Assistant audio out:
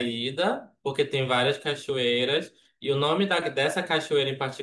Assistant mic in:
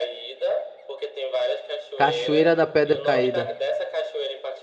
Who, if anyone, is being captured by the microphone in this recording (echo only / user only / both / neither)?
both